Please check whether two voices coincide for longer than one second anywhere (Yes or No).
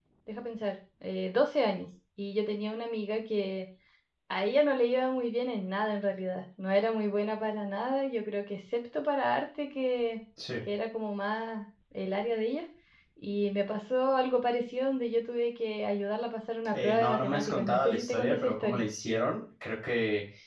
Yes